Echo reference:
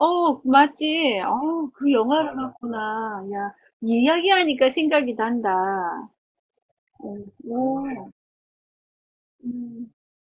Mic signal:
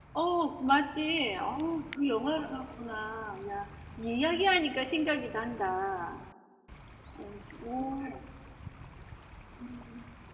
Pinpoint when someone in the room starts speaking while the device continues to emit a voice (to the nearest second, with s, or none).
none